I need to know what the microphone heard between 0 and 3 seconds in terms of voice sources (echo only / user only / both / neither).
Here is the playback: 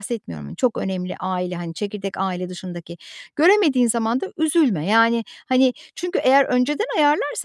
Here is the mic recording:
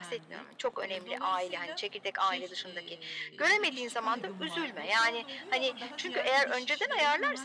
both